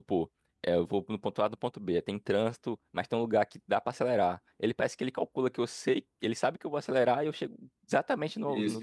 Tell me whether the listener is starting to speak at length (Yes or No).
Yes